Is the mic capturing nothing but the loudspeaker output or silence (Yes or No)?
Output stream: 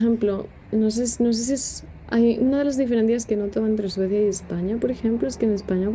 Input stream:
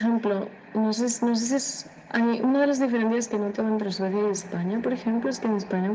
Yes